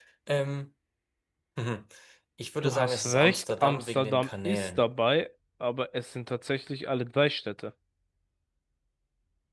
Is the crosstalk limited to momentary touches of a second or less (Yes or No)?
No